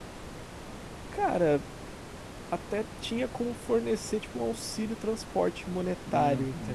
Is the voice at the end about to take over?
Yes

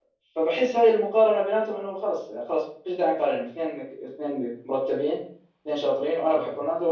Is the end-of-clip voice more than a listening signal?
No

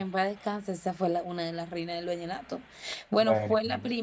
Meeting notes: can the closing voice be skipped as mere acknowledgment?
Yes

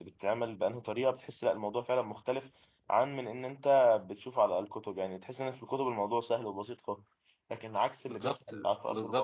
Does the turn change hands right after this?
Yes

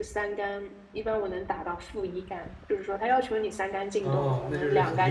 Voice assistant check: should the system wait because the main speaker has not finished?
No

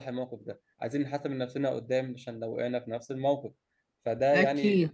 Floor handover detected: No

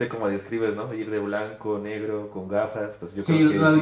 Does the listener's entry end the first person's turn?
Yes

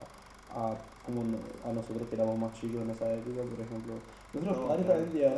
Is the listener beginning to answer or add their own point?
No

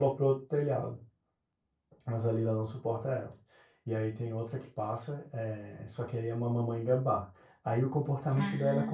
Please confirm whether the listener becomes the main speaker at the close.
No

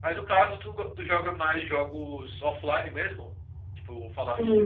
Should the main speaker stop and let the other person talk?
Yes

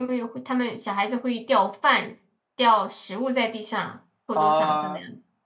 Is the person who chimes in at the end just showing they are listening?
No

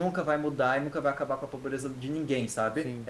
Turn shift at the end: No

